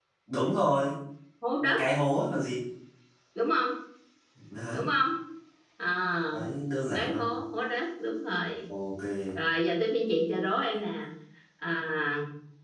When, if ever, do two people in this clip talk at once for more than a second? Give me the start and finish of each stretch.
none

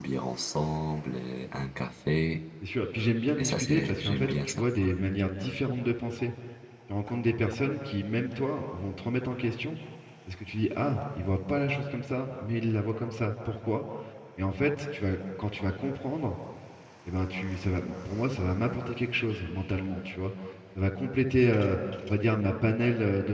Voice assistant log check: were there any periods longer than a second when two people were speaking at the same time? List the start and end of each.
3.4-4.7

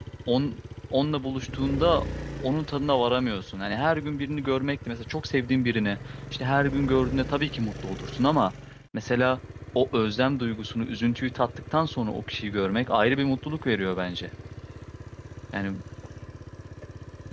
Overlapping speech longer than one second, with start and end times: none

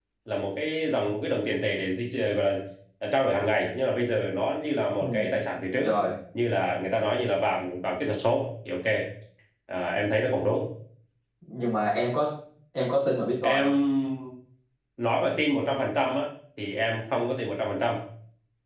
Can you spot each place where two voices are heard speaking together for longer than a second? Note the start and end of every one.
none

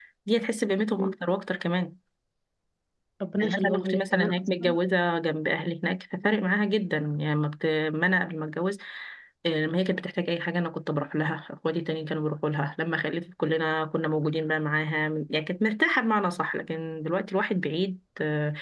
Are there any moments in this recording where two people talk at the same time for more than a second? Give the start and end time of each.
3.4-4.8

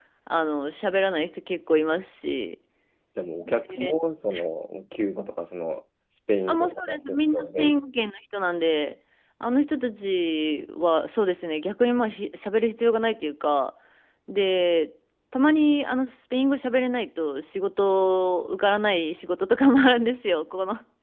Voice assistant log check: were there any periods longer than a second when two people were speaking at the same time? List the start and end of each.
6.5-7.8

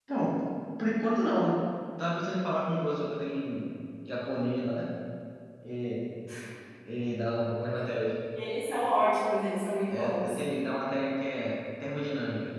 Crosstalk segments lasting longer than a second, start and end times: none

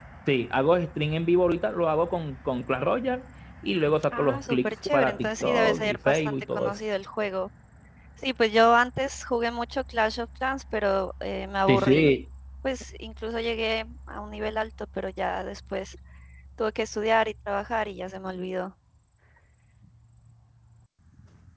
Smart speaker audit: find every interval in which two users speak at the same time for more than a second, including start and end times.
4.1-6.8

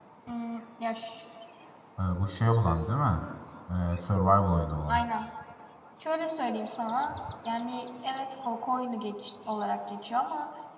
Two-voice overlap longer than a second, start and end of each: none

